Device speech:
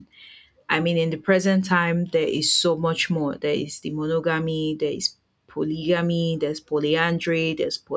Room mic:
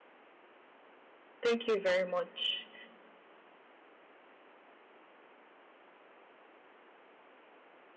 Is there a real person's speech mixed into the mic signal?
Yes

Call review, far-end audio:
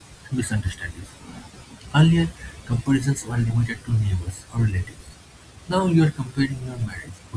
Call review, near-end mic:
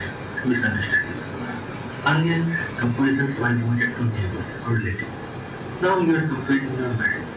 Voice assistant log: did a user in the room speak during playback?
No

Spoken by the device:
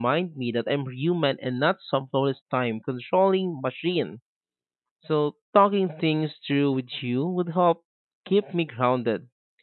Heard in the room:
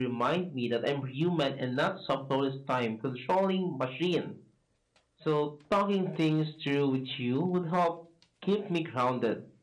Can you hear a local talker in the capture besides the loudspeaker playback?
No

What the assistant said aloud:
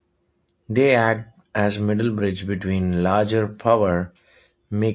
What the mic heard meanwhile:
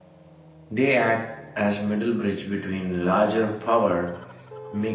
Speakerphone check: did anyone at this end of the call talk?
No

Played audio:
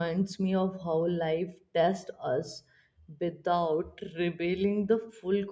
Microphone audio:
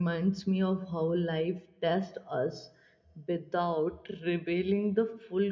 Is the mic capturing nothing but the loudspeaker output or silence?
Yes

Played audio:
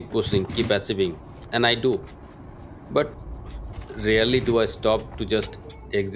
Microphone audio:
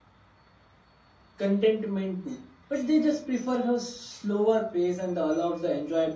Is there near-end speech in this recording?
Yes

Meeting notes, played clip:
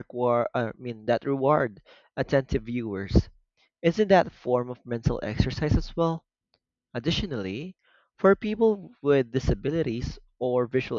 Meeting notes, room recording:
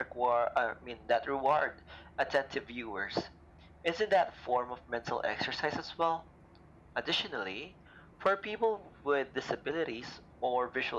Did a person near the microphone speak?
No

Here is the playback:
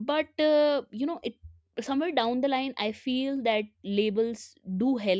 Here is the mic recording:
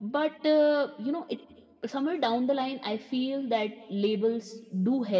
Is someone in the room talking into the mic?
No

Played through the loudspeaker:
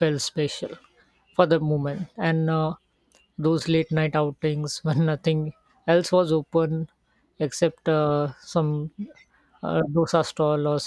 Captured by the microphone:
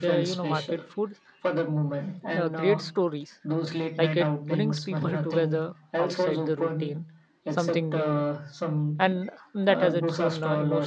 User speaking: Yes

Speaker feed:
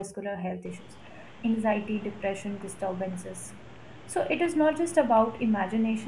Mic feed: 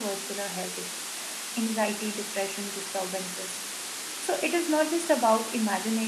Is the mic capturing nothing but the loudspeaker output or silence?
Yes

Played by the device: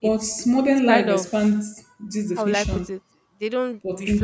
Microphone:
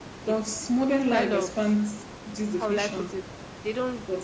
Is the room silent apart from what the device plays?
Yes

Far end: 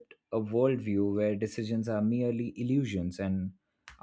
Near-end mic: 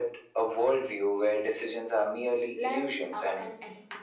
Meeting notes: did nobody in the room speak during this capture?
No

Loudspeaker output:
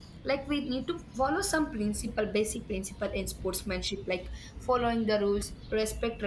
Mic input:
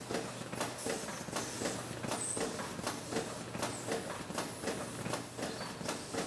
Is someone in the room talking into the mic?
No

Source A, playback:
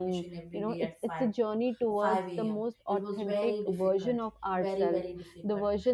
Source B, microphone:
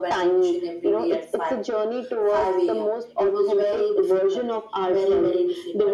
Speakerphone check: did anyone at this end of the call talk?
No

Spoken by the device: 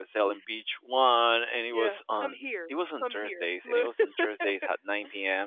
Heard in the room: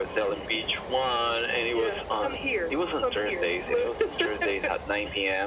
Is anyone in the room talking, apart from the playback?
No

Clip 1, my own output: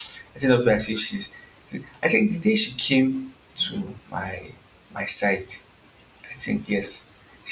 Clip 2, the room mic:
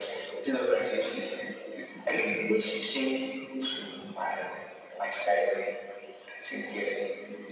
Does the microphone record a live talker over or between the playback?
No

